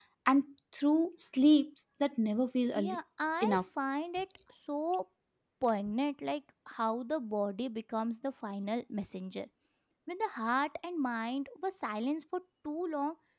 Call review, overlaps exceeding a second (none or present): none